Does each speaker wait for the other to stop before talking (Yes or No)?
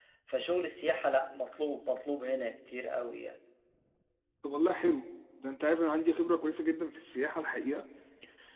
Yes